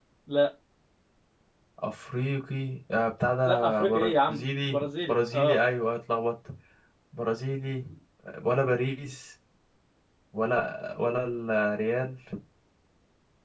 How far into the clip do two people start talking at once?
3 s

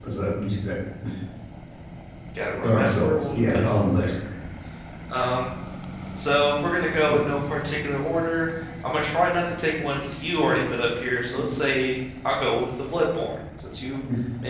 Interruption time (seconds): 3 s

